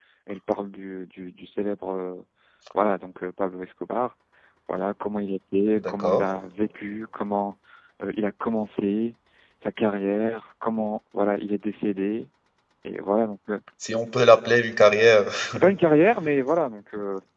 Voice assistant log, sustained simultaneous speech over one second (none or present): none